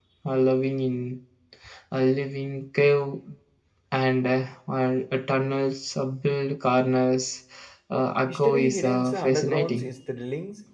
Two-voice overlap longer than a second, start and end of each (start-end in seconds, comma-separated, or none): 8.3-9.9